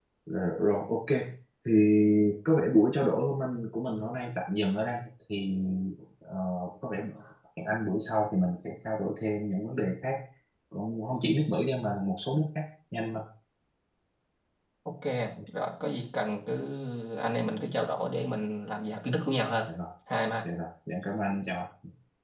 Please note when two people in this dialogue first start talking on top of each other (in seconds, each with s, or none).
none